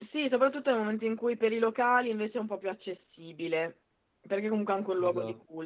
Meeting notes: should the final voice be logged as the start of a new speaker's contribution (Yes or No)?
No